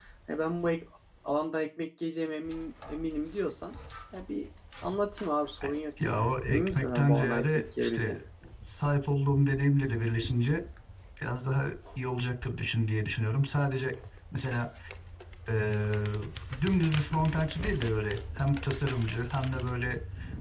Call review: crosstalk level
present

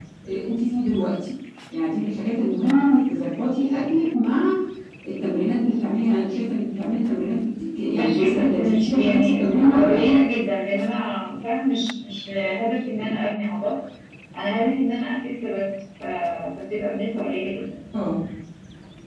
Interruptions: present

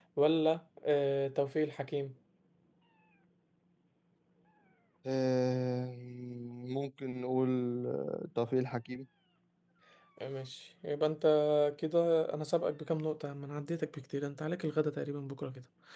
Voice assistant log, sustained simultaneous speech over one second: none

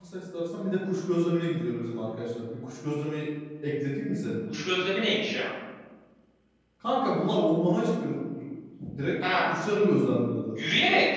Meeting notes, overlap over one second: none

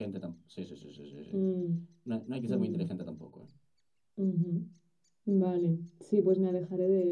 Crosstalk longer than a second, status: none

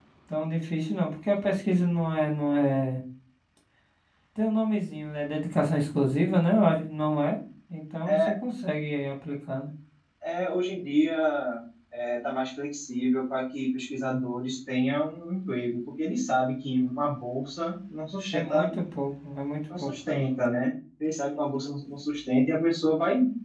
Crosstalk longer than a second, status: none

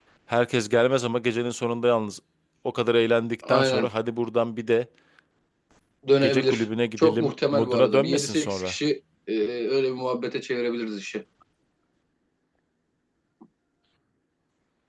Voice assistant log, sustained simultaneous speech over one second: present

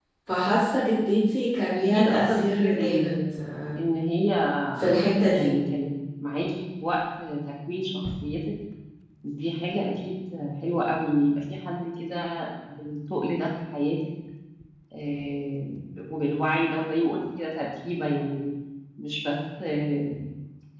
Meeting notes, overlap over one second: present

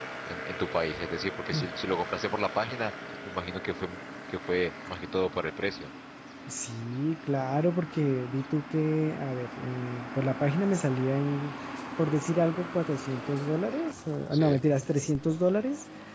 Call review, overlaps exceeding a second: none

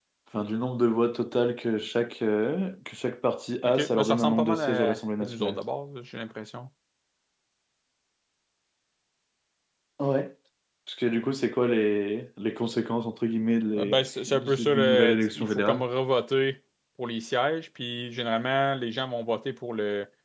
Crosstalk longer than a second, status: present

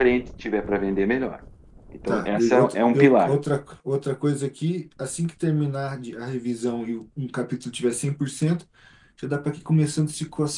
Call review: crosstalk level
present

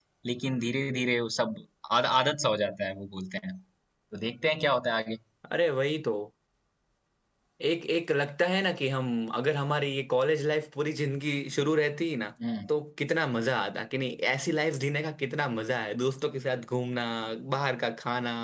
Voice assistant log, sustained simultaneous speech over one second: none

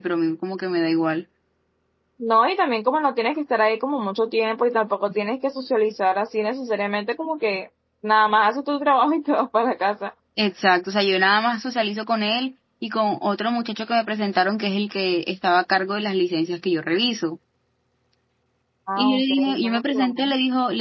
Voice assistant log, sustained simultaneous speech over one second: present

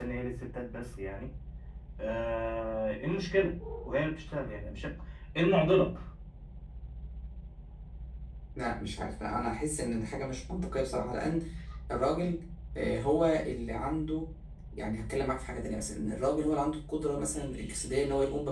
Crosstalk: none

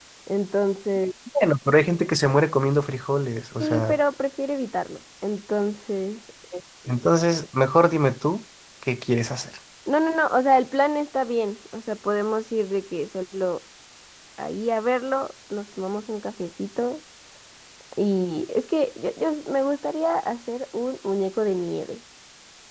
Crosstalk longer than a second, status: none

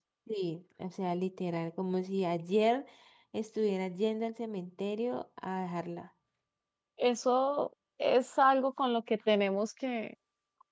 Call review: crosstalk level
none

